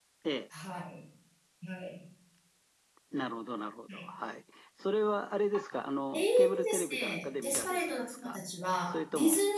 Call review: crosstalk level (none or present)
present